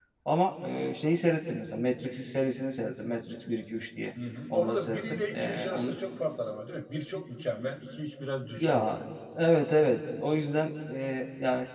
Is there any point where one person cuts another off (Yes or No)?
Yes